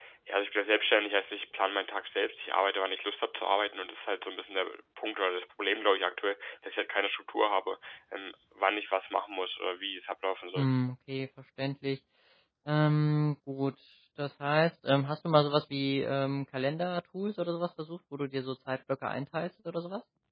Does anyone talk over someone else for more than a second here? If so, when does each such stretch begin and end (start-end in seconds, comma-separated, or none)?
none